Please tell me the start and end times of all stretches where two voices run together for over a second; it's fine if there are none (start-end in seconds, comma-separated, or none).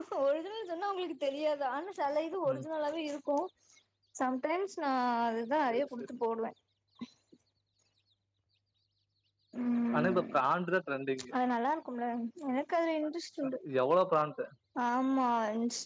none